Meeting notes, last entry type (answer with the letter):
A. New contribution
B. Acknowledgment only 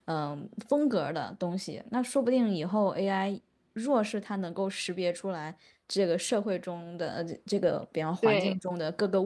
B